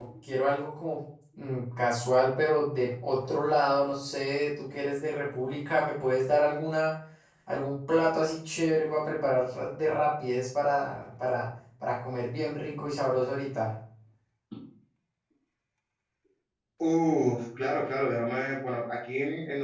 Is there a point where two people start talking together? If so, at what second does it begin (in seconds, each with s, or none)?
none